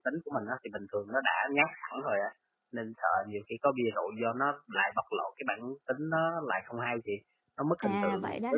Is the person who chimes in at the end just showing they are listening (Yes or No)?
No